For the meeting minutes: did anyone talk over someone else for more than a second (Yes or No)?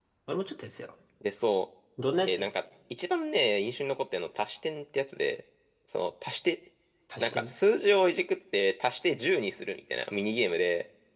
No